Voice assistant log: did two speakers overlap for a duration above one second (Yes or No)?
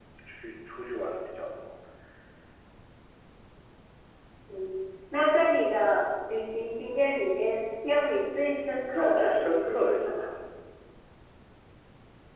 Yes